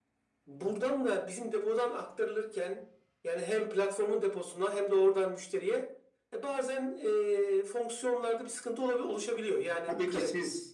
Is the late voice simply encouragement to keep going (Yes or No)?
No